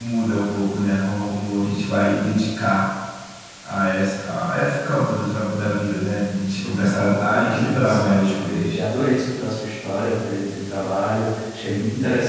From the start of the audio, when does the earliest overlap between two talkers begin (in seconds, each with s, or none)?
6.6 s